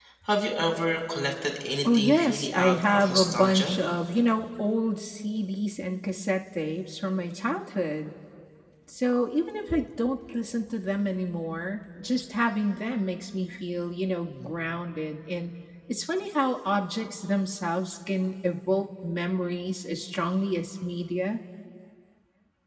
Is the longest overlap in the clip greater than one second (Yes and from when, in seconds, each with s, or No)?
Yes, from 1.8 s